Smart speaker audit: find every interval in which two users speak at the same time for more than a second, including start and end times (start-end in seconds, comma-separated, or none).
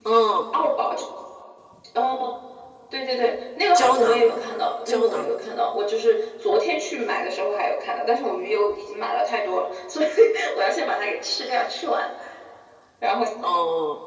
none